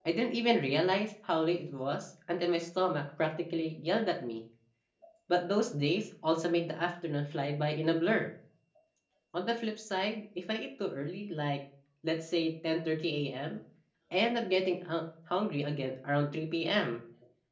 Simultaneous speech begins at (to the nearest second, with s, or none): none